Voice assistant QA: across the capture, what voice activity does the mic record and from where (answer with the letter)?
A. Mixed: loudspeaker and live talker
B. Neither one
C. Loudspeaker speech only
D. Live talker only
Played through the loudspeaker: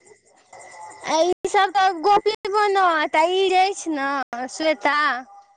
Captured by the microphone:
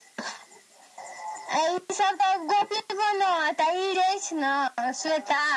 C